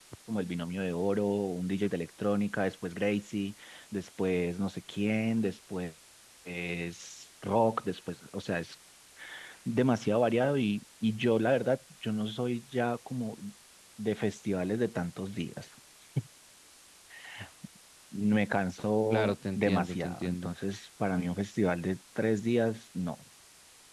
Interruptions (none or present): present